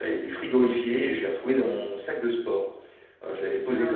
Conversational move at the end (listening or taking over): listening